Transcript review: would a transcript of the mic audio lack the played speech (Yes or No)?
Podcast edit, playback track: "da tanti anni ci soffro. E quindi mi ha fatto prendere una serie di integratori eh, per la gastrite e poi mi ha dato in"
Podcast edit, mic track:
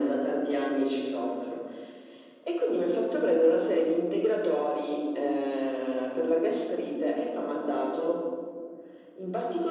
No